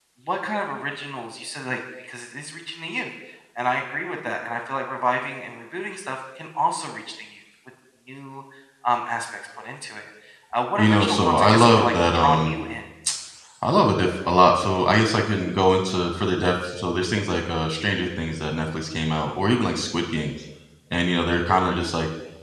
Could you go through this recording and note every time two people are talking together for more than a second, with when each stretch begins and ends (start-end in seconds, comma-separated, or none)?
10.8-12.6